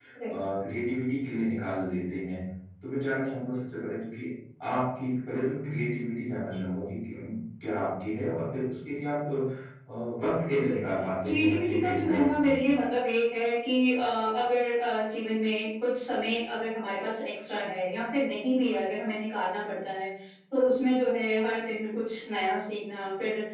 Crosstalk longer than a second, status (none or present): present